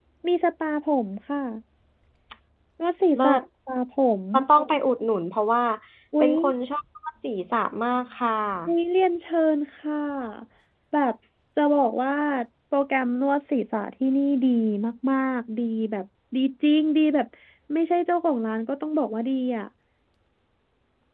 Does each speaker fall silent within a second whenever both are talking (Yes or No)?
Yes